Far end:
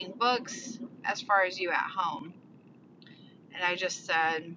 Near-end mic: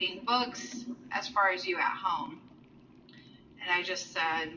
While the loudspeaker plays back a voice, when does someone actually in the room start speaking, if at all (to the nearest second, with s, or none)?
none